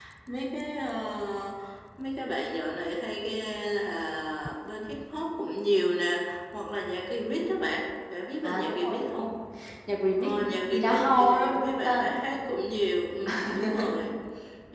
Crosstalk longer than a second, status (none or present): present